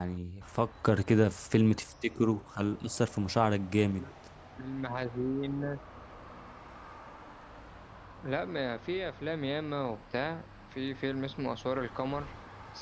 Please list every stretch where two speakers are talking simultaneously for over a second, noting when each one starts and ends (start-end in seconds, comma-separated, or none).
none